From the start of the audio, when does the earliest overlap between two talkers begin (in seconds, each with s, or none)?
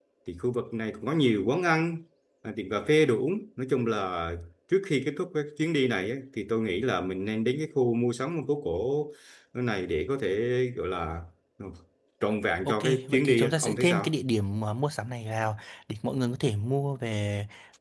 12.6 s